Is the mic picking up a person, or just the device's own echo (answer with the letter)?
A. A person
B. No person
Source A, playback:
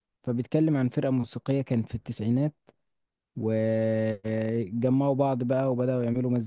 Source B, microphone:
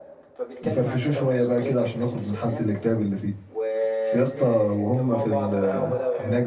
A